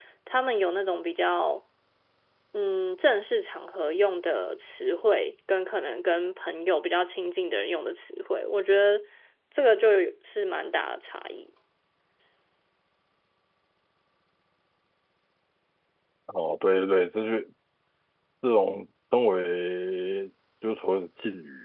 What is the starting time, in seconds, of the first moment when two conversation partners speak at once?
none

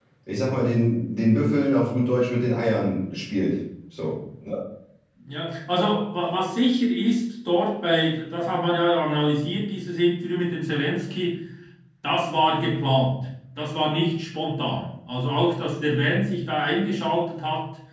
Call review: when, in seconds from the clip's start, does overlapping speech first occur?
none

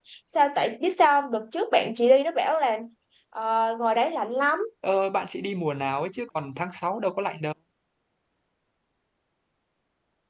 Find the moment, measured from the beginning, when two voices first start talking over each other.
none

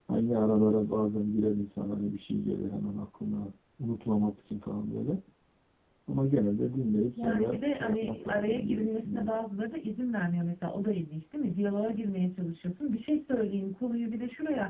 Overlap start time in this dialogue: 7.2 s

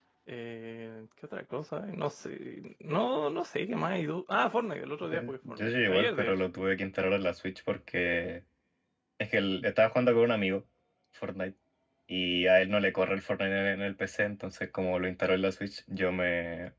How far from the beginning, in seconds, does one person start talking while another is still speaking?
5.0 s

